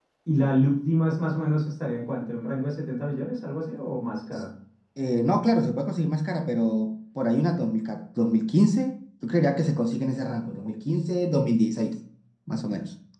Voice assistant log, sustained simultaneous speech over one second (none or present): none